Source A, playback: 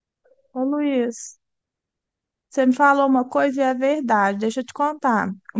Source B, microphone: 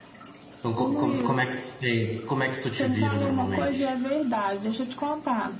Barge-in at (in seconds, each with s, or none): 0.6 s